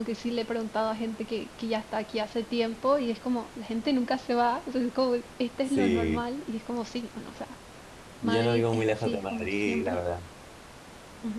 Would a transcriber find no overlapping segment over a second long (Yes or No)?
No